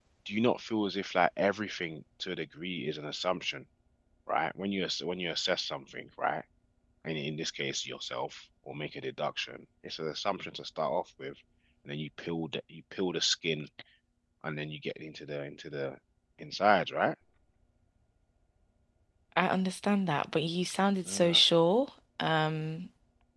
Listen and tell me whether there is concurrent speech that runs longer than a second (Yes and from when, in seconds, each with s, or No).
No